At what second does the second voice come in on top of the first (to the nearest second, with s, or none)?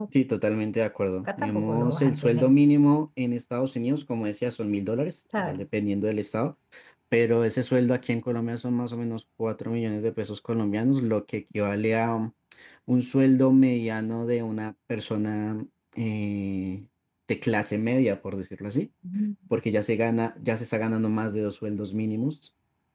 1 s